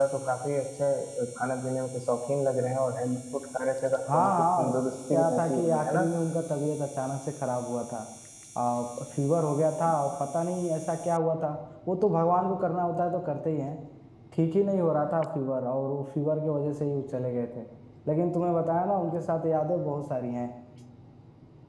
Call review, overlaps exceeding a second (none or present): present